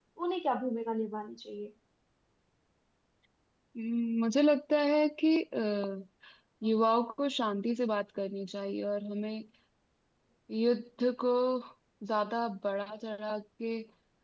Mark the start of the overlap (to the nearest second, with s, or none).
none